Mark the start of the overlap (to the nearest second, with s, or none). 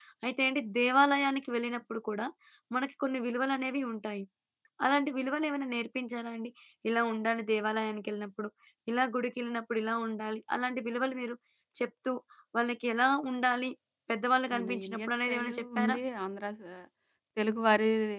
15 s